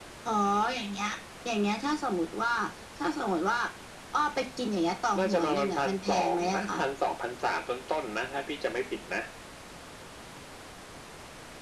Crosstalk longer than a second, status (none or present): present